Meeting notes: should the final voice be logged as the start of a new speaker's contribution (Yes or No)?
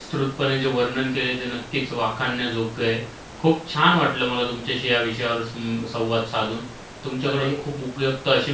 No